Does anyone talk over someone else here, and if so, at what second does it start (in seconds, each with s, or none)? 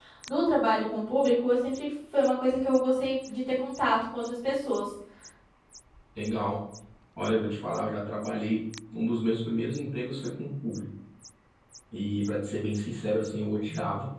none